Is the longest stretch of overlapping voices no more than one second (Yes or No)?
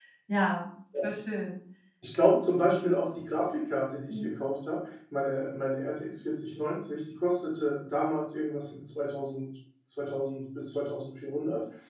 Yes